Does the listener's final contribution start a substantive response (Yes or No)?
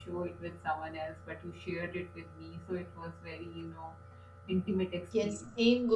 Yes